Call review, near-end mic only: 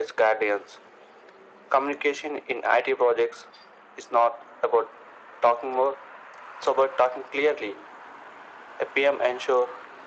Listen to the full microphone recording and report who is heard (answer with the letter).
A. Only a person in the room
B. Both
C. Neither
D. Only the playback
D